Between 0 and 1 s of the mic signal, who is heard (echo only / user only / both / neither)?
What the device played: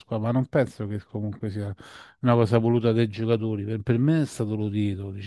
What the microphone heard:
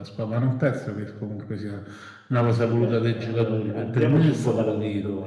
echo only